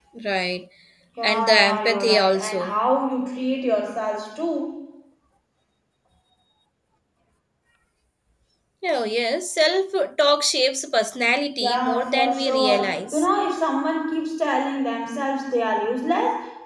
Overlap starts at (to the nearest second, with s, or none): 1 s